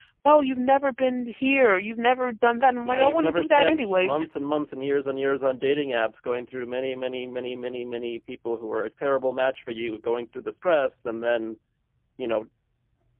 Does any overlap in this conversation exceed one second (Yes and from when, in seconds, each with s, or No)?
Yes, from 2.8 s